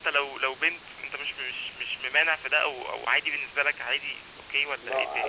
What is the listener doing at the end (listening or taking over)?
taking over